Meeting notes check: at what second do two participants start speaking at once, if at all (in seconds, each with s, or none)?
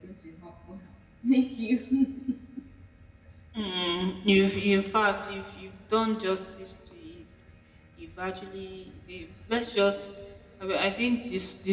none